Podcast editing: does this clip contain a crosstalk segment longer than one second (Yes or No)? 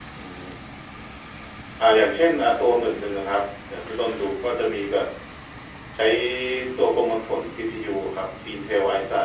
No